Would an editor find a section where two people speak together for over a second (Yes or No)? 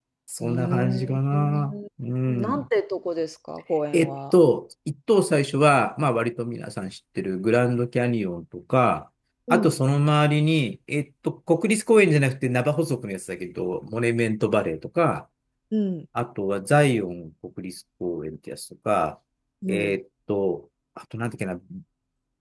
Yes